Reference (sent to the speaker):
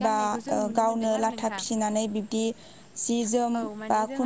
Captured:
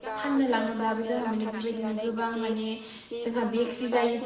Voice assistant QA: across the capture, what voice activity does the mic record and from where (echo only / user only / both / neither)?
both